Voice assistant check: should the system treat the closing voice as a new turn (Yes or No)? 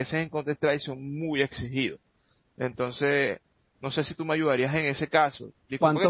No